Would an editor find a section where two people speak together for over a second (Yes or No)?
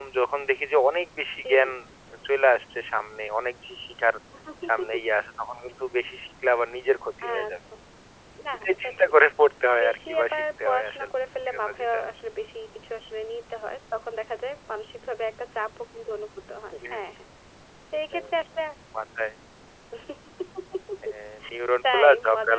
Yes